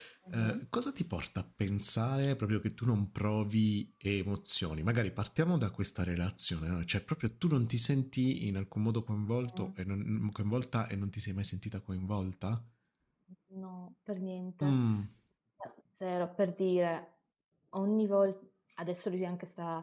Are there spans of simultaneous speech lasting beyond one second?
No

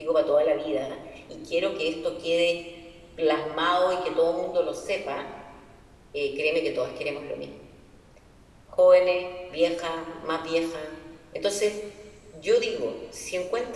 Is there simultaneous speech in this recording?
No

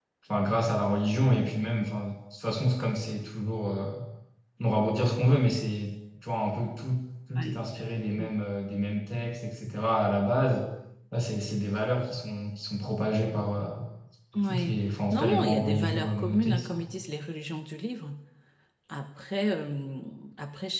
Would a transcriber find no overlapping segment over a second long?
No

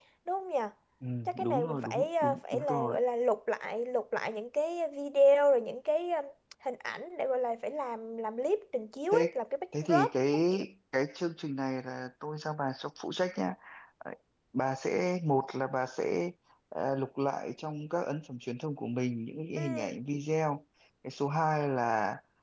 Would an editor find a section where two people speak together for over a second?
Yes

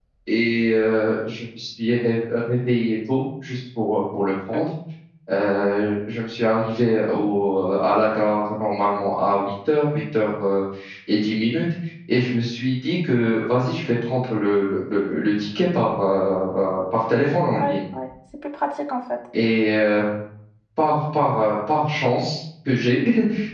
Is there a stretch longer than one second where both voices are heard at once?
No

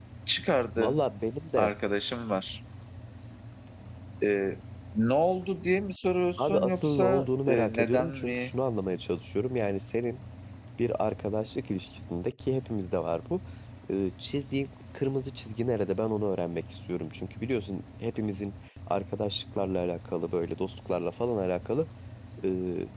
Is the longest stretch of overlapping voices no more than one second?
No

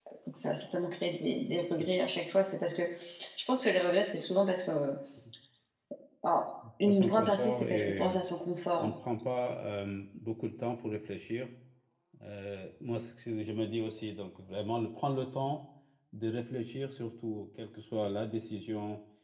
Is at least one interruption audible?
Yes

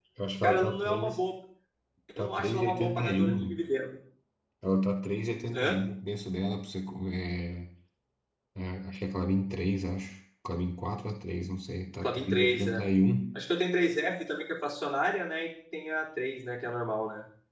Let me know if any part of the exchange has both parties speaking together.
Yes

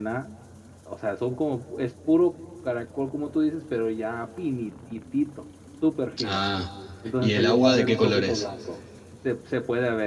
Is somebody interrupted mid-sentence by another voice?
Yes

